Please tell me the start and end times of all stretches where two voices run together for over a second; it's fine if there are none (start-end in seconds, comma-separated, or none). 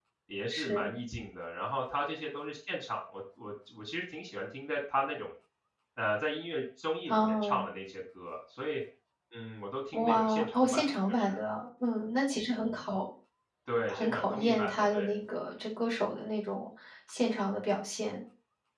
9.9-11.4, 13.9-15.1